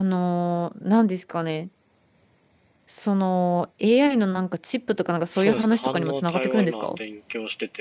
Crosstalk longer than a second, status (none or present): present